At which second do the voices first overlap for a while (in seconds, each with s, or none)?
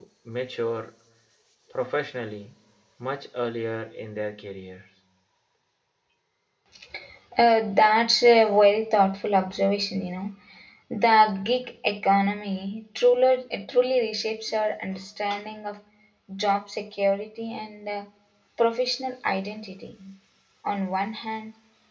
none